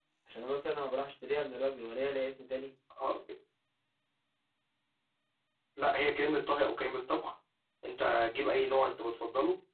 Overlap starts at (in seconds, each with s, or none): none